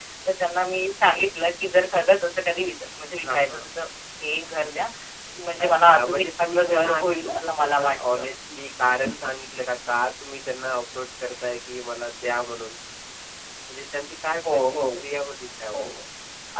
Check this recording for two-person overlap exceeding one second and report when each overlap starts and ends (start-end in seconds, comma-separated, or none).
5.6-8.2